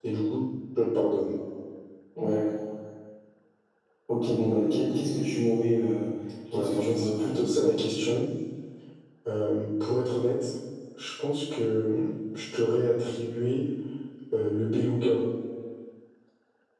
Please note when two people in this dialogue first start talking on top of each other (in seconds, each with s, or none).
6.5 s